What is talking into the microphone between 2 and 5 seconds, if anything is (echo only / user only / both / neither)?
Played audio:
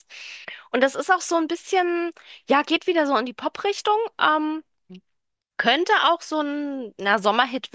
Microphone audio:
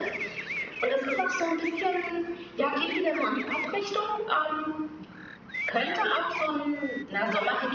echo only